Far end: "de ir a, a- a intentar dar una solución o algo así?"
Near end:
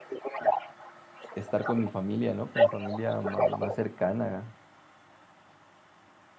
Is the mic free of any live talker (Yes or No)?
No